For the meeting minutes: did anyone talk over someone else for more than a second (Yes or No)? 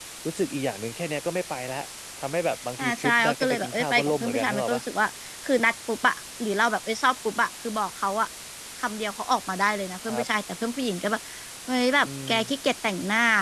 Yes